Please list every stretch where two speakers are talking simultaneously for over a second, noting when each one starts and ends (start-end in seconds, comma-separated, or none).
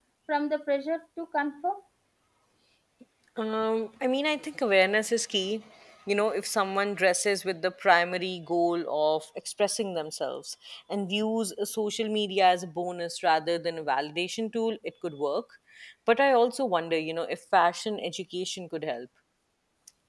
none